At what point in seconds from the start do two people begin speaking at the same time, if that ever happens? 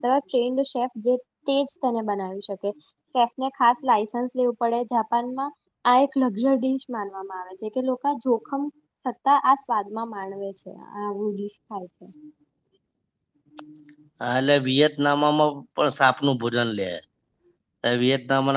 none

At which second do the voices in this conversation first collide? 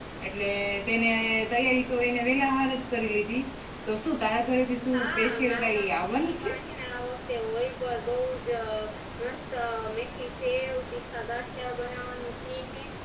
4.9 s

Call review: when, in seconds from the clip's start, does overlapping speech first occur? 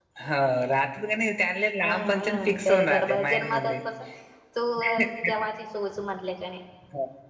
1.8 s

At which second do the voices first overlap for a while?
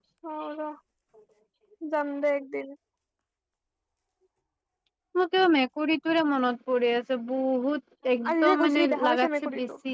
8.2 s

